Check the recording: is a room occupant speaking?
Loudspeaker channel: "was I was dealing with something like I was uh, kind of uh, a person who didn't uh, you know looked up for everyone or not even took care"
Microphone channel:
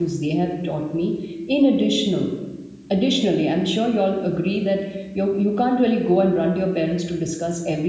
Yes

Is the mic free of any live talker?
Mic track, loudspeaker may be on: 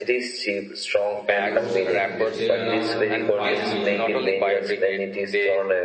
No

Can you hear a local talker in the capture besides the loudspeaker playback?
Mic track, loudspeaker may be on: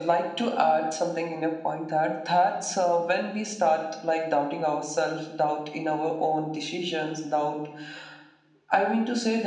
No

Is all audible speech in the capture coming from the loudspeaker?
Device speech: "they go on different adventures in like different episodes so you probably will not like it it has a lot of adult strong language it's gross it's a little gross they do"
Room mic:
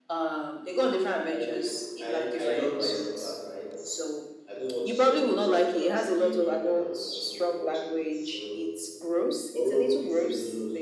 No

